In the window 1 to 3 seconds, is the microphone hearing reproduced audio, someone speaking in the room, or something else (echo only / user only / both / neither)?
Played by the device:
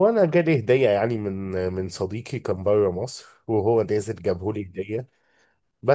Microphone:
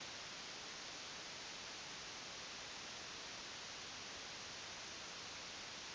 neither